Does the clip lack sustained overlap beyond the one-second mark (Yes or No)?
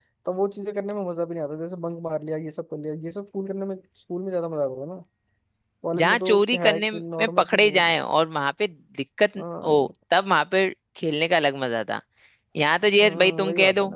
No